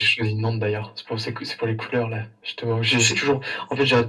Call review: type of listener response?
listening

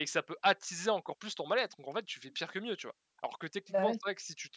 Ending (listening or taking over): listening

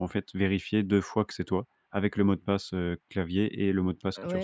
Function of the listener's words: taking over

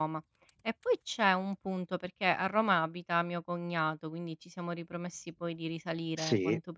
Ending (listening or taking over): listening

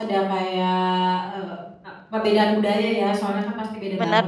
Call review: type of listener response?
listening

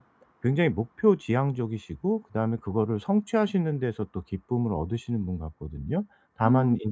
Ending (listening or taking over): listening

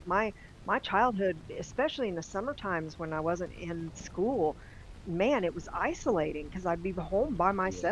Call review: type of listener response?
listening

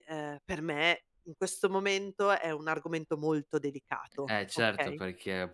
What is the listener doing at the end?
taking over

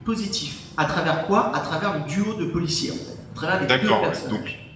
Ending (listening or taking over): taking over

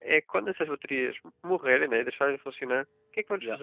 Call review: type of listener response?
listening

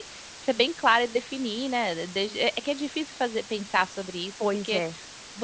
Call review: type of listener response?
listening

